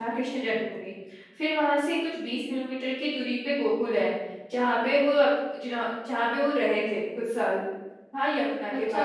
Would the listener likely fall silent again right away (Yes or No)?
No